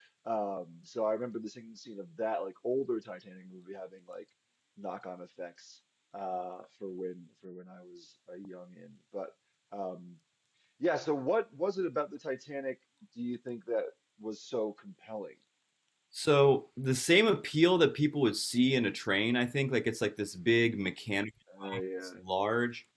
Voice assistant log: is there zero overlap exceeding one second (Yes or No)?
Yes